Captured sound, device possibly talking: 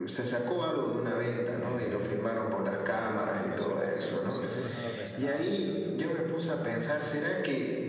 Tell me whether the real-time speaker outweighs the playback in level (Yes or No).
No